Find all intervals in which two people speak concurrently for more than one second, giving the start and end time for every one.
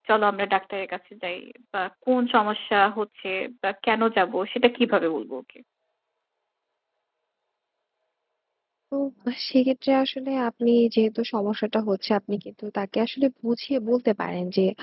none

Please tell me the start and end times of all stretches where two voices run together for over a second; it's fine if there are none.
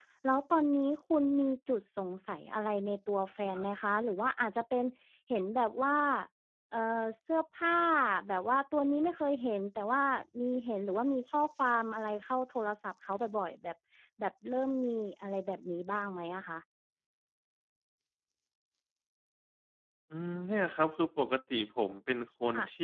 none

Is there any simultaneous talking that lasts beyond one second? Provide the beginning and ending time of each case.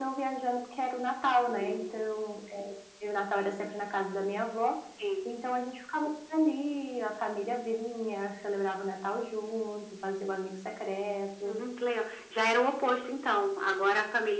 none

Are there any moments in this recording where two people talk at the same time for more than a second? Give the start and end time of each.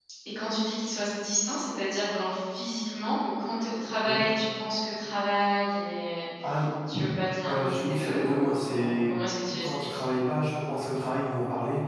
7.5-9.1

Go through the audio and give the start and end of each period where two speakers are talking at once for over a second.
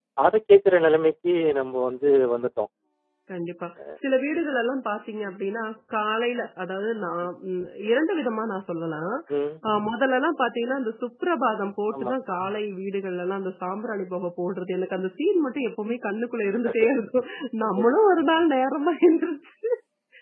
none

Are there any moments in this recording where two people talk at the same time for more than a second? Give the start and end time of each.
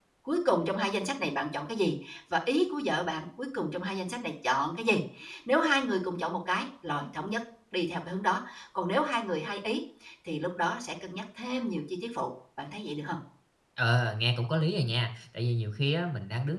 none

